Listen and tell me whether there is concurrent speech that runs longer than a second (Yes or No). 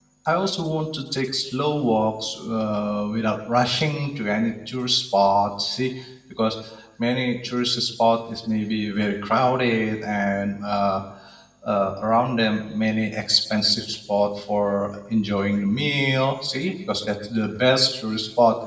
No